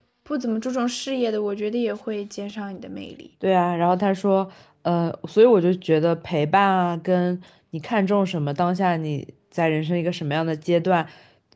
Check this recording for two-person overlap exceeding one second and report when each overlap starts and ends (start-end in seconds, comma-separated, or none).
none